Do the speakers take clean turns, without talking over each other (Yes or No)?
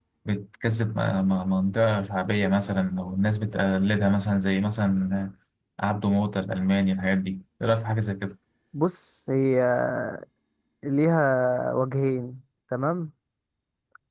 Yes